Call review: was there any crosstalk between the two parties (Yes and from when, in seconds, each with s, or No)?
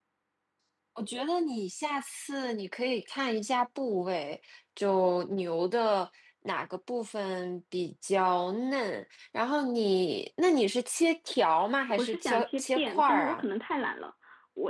Yes, from 11.9 s